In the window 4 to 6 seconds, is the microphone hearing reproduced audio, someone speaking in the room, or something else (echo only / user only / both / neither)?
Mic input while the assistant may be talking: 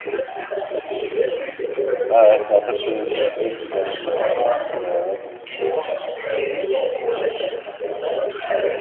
both